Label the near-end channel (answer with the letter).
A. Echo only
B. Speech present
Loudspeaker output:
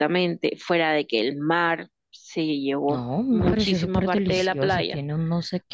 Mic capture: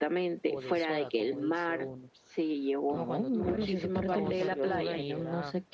B